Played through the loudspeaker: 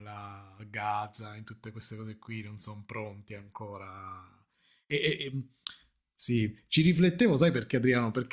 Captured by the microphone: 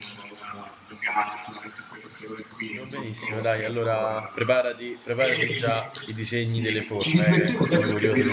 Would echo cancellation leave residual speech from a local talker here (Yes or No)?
Yes